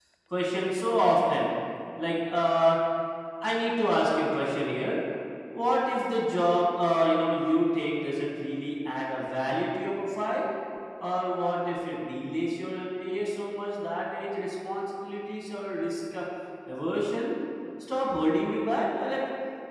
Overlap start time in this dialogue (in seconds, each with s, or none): none